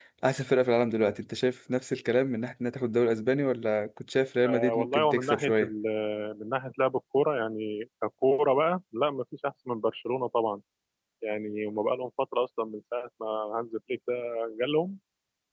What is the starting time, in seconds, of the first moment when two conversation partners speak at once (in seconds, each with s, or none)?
4.4 s